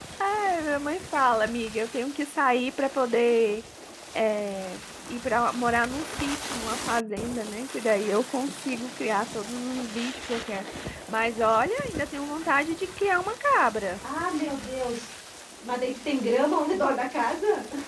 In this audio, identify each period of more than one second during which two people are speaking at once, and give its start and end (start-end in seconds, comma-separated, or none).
none